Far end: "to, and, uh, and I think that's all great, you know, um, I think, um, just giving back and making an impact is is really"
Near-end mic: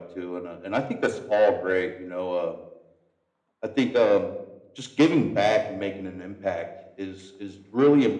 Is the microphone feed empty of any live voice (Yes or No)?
Yes